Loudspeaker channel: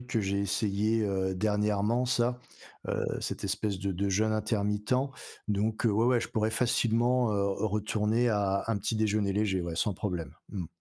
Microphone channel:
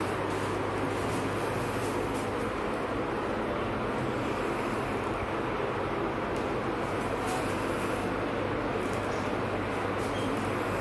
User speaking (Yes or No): No